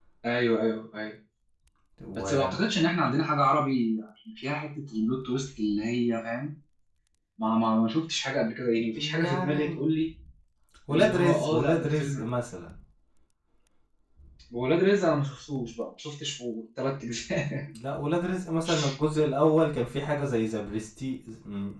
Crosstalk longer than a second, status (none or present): present